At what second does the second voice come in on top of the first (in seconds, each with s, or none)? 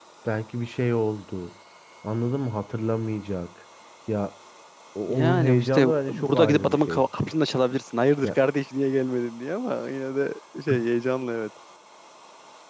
5.1 s